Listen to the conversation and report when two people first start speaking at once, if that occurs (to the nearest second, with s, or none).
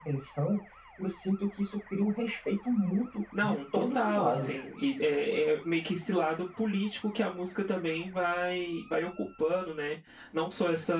3 s